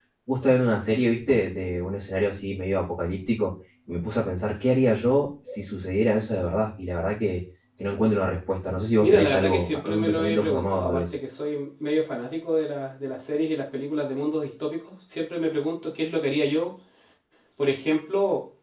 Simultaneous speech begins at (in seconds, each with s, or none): 9.0 s